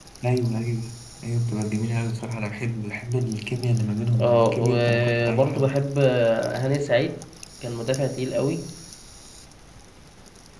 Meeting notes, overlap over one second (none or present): present